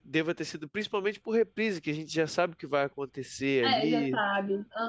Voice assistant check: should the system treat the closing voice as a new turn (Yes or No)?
Yes